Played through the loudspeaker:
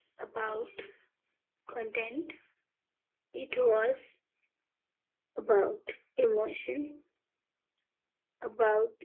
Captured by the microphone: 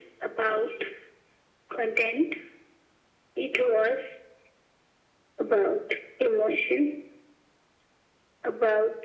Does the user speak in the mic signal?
No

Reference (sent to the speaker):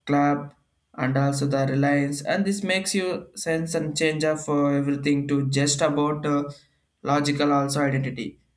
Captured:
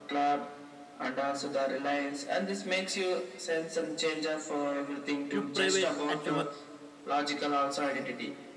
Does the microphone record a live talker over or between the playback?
Yes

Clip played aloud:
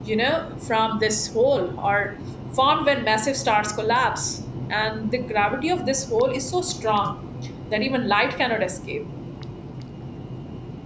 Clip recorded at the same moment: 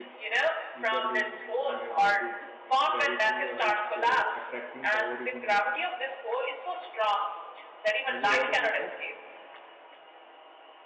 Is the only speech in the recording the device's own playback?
No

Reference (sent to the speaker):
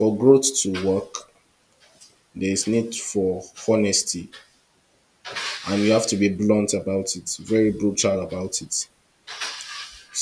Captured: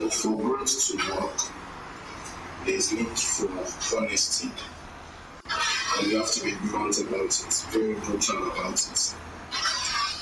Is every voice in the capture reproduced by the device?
Yes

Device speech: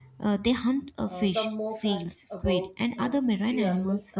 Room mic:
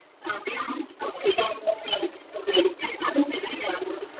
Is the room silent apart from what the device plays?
Yes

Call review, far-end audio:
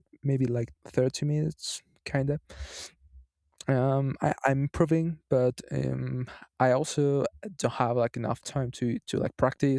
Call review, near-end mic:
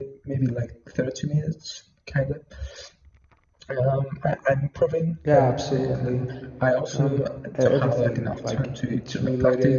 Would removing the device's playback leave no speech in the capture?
No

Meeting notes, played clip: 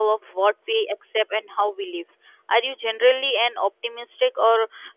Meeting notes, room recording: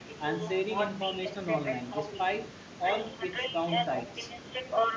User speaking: Yes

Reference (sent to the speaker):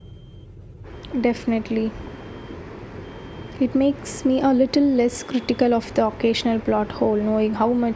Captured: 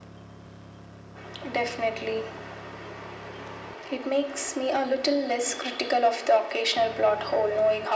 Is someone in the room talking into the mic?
No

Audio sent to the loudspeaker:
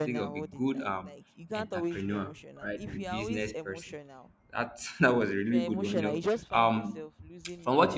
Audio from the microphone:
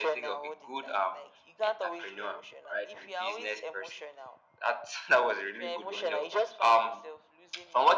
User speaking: No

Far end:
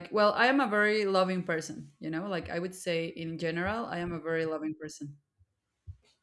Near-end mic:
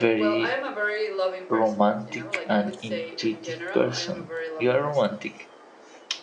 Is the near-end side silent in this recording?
No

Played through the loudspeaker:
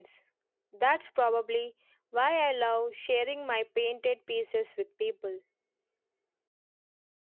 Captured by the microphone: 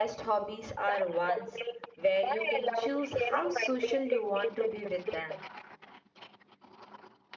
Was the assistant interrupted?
Yes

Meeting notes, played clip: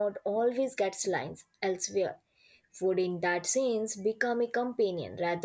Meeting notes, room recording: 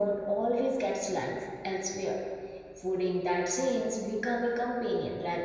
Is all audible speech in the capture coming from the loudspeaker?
Yes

